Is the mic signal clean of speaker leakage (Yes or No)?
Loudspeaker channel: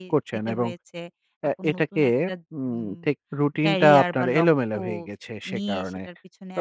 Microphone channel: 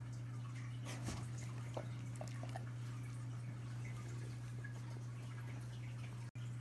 Yes